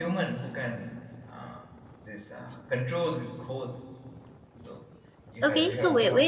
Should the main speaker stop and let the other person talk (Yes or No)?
Yes